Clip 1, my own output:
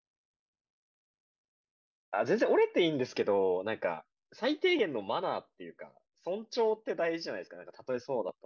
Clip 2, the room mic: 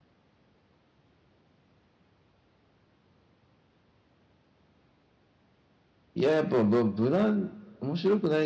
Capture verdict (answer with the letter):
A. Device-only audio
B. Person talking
B